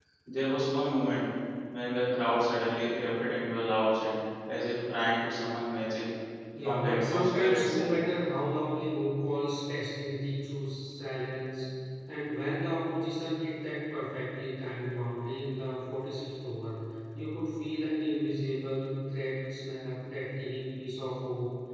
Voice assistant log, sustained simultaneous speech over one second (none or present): present